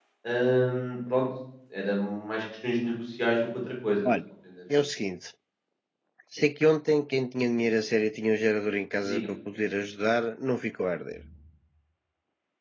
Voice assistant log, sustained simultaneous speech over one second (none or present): none